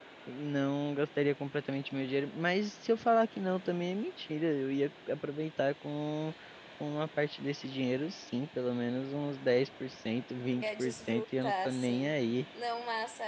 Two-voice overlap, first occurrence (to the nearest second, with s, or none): 11 s